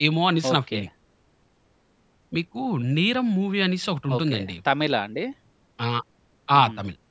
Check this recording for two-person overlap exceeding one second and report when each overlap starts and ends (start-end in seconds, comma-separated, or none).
none